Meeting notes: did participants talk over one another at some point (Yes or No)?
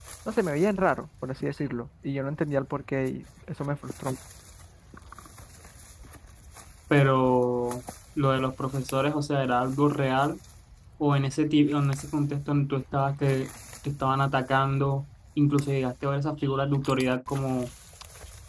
No